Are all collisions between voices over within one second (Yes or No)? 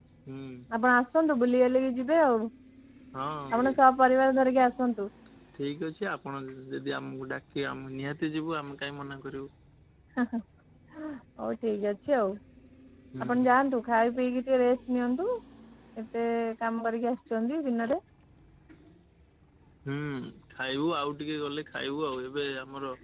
Yes